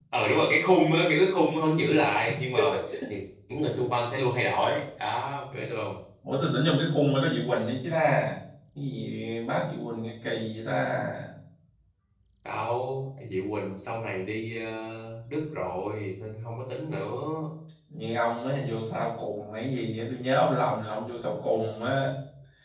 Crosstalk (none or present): none